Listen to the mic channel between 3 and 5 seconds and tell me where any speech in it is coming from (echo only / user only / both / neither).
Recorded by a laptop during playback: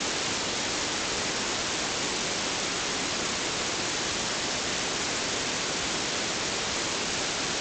neither